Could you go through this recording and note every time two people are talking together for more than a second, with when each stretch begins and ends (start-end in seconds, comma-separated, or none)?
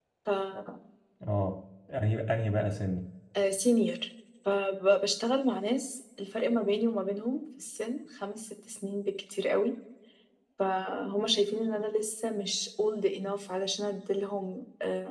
none